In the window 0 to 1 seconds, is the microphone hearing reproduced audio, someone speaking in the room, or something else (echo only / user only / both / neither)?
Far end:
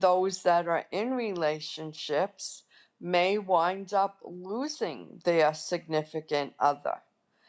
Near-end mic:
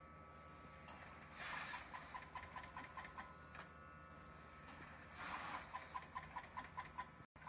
neither